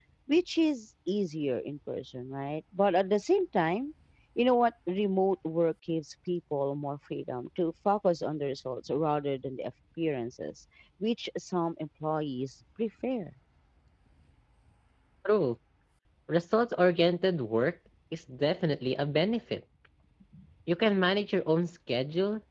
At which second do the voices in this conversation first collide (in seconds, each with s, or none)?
none